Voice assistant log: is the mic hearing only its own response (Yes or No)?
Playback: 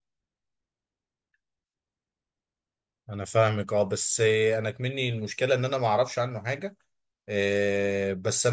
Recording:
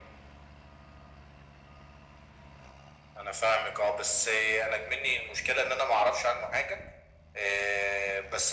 Yes